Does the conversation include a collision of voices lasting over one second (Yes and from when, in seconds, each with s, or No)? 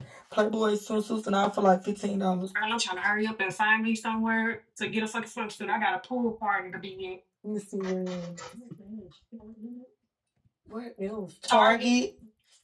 No